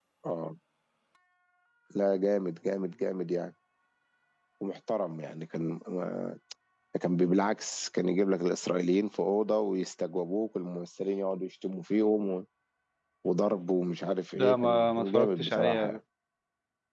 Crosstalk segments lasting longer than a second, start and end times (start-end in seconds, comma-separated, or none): 14.3-16.0